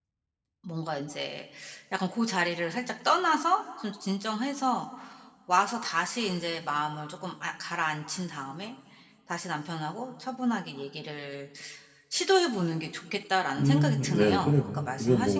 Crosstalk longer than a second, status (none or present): present